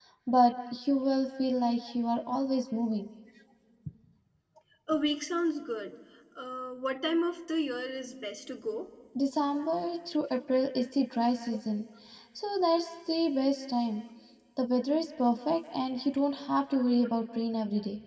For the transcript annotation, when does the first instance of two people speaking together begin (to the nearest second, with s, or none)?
none